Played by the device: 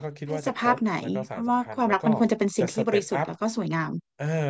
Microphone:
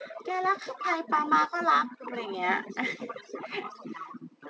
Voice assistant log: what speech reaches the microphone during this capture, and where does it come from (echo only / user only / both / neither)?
both